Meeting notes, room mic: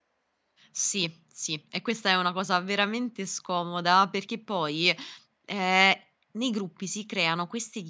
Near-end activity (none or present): present